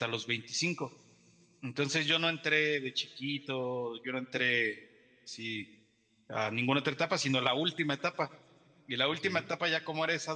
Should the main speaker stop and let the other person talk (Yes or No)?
No